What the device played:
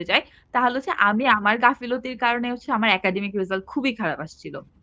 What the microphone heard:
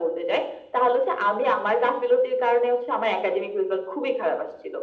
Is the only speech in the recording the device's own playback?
Yes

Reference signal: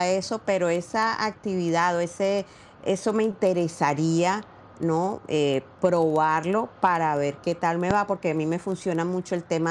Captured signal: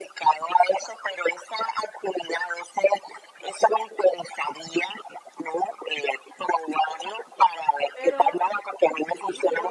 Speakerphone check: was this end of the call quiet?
No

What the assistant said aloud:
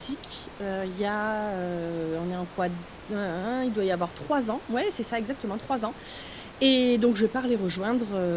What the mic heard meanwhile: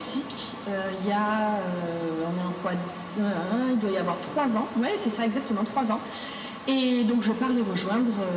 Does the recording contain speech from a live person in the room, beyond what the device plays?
No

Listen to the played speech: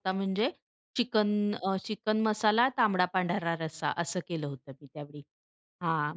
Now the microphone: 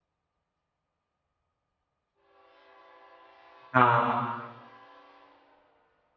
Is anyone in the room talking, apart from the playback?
Yes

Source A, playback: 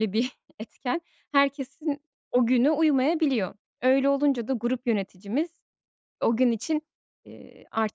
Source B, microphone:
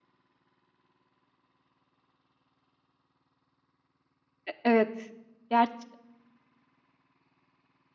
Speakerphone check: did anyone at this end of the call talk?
Yes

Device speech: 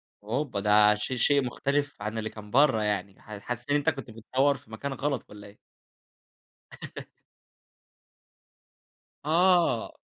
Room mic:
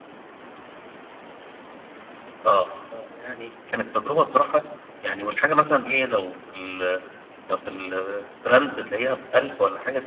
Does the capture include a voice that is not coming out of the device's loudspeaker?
Yes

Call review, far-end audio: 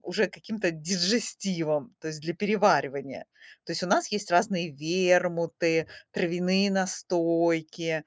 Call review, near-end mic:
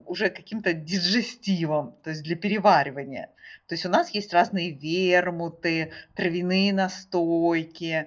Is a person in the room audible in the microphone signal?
No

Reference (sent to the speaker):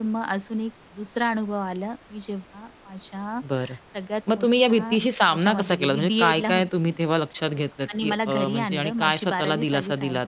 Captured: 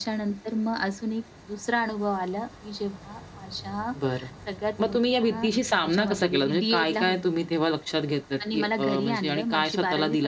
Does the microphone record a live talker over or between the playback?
No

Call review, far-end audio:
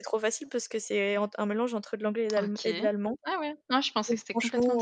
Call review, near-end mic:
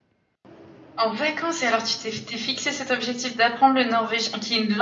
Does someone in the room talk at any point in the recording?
Yes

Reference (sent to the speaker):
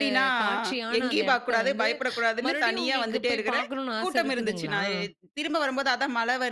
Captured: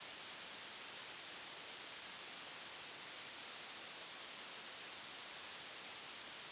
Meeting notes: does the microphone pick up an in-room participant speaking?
No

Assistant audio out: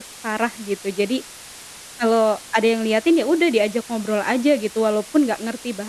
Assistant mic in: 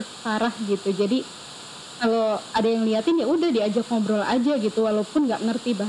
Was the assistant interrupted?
No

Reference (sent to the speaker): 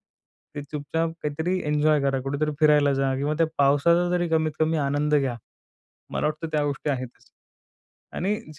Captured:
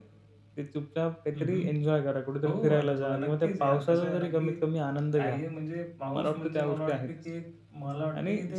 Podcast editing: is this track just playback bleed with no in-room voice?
No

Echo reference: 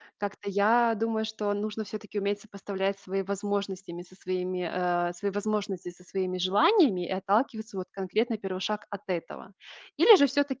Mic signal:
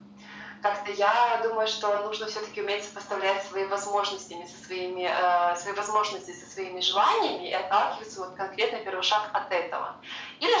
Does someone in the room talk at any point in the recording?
No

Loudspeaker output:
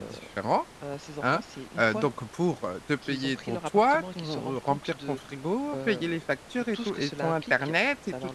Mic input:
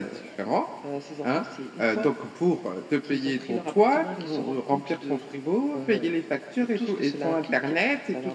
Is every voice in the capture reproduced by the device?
Yes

